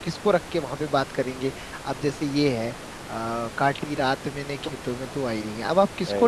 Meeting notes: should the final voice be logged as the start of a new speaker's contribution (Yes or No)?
No